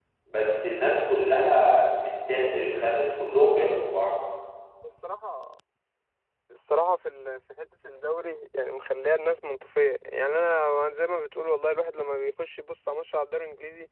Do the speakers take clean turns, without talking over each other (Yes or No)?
Yes